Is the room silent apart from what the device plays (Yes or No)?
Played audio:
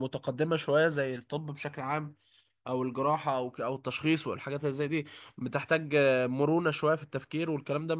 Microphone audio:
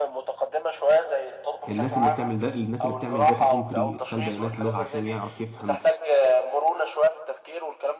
No